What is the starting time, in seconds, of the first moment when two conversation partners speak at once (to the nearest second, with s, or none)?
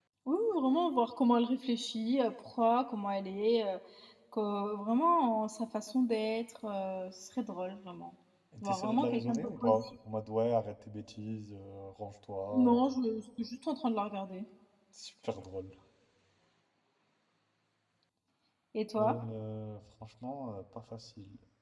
9 s